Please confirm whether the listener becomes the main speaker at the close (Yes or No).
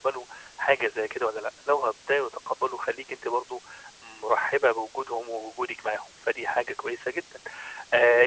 No